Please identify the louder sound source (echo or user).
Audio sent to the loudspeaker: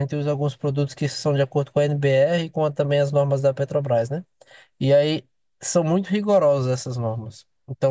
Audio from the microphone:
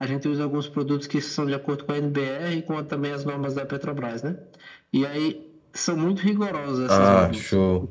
user